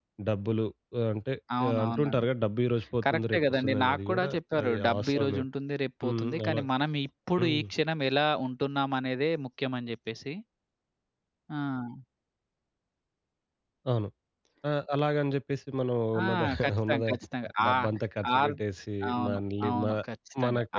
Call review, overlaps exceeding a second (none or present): present